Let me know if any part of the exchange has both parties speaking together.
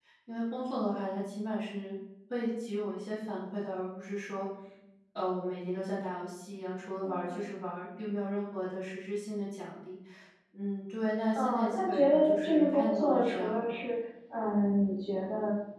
Yes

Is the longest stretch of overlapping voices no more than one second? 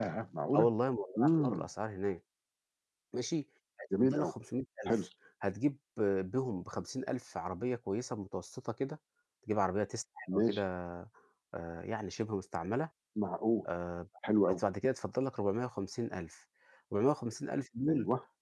Yes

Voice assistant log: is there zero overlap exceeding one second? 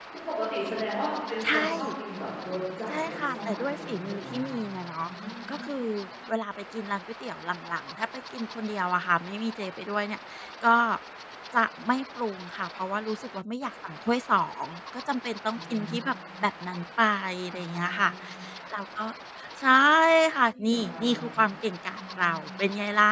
No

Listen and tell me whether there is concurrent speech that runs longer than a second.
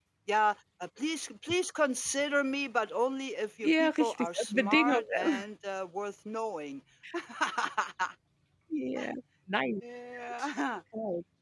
Yes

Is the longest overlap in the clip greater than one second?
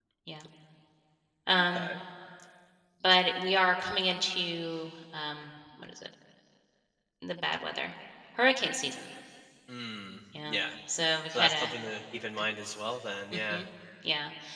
No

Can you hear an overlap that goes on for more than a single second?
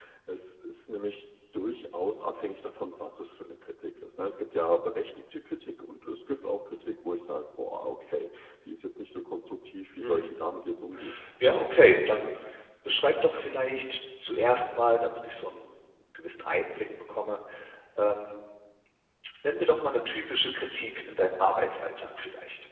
No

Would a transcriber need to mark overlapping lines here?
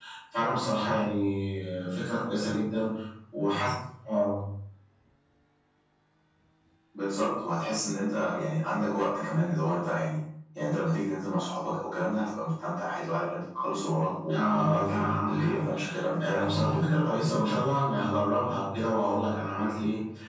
Yes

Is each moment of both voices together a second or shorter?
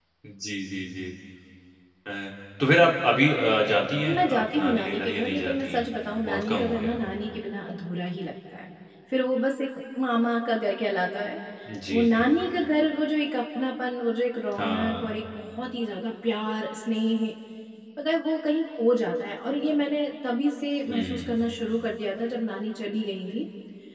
No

